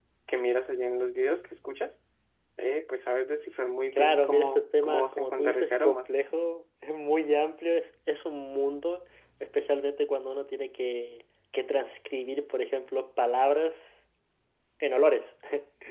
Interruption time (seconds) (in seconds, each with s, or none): 4.0 s